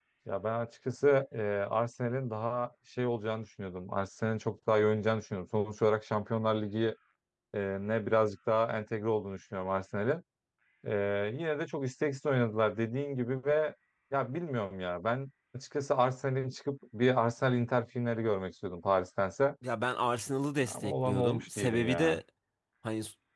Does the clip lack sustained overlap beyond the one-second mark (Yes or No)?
No